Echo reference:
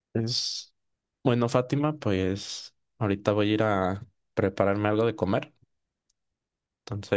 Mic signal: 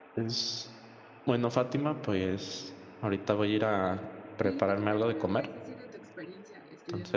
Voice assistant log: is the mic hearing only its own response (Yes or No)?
No